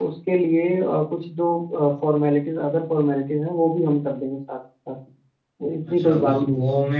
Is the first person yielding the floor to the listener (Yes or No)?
Yes